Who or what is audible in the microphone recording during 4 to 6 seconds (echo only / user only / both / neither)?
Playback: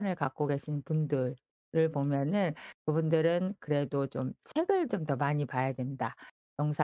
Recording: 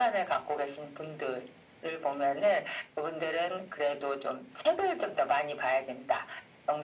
echo only